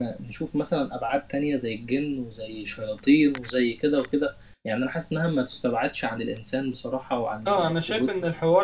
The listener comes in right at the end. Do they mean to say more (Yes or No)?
Yes